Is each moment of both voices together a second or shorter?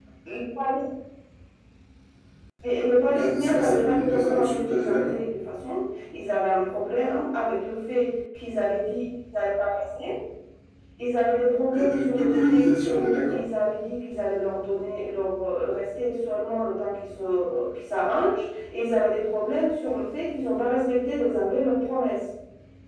No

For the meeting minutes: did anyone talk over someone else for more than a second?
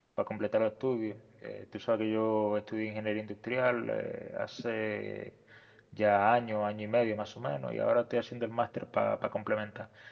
No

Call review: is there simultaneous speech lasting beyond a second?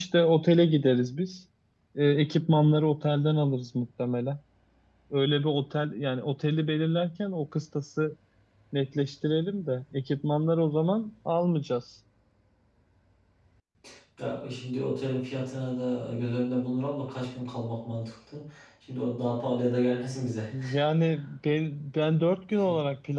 No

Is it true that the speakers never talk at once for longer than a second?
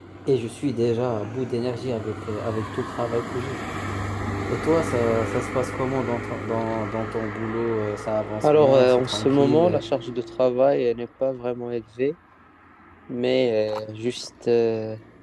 No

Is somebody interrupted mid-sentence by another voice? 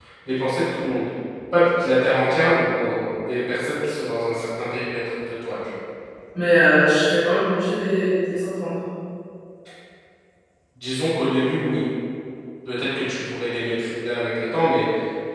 No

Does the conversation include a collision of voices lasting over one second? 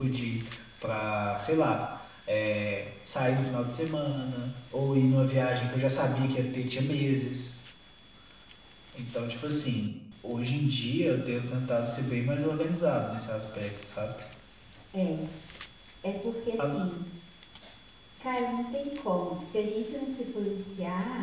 No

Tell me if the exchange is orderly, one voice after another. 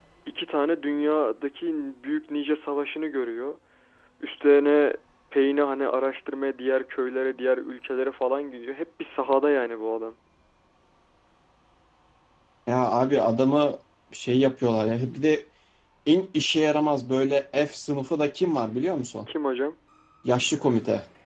Yes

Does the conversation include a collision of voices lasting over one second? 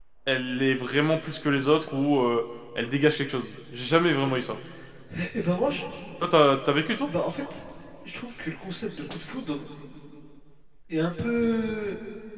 No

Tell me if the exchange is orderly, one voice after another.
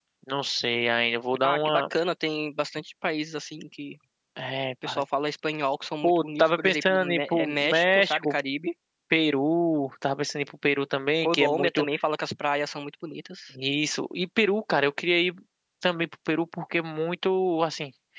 No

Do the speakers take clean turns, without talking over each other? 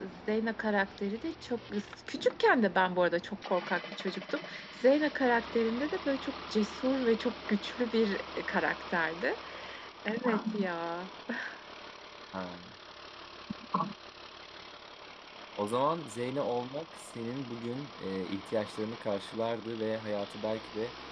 Yes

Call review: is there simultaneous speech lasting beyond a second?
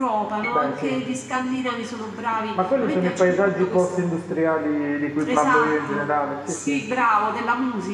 Yes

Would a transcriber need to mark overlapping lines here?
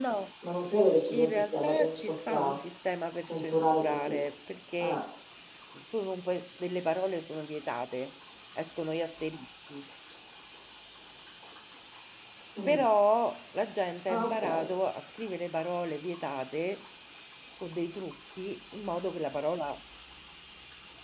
Yes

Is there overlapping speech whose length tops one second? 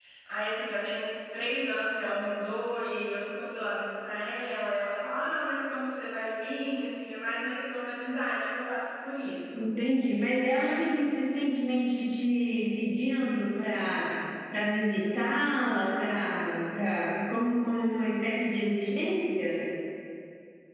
No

